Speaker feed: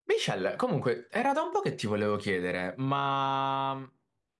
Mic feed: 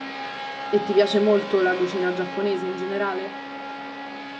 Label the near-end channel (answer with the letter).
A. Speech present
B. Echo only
A